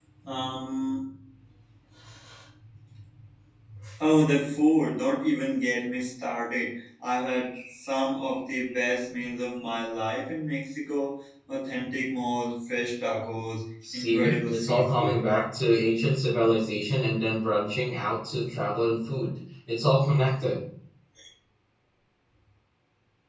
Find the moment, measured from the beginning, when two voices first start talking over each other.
14 s

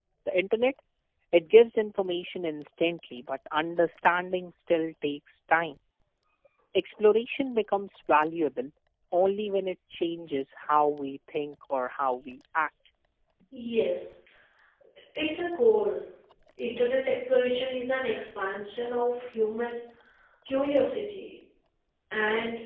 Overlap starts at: none

